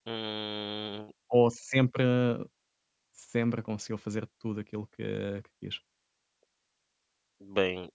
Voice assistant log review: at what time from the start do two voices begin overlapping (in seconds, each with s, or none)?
none